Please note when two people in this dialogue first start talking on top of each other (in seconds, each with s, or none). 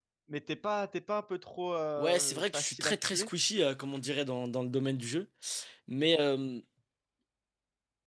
2.0 s